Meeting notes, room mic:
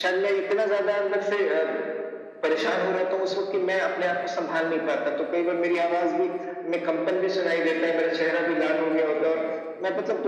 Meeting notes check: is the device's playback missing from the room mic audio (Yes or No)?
No